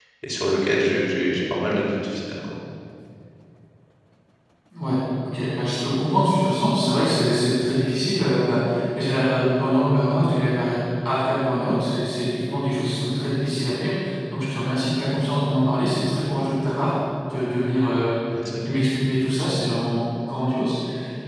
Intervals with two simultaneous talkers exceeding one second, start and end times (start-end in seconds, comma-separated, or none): none